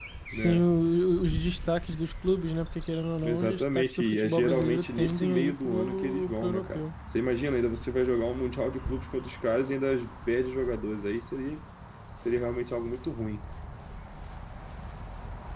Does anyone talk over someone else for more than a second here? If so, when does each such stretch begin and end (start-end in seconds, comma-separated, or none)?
3.2-6.8